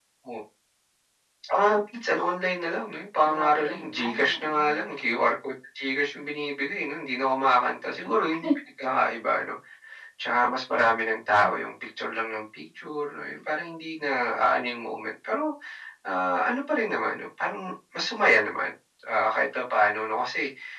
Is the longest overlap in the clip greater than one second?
Yes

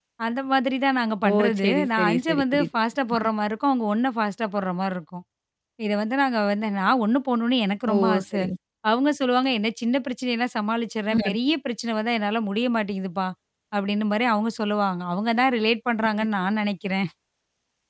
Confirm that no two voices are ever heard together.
No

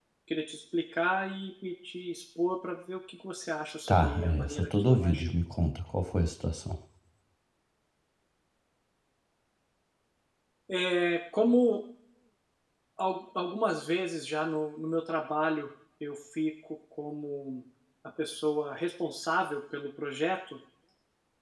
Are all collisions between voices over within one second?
No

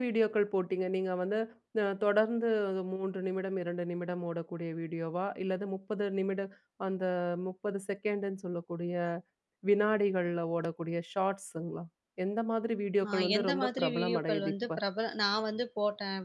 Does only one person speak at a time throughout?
No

